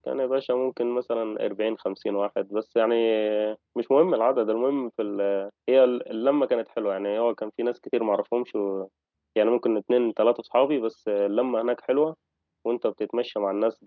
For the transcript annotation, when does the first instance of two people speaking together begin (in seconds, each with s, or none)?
none